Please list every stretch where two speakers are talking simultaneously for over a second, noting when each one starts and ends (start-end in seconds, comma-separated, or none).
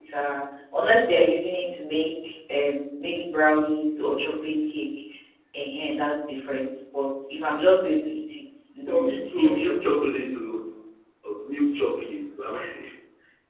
8.9-10.1